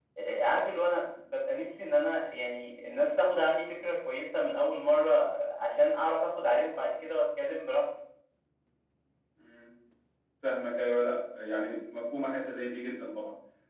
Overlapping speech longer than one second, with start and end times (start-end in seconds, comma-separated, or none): none